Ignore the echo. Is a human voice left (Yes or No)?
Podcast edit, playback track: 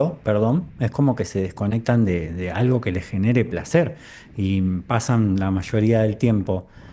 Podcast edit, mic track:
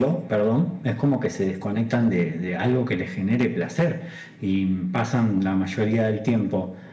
No